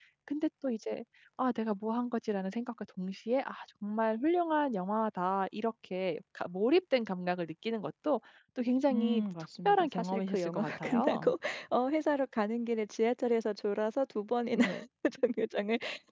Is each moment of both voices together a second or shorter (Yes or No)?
No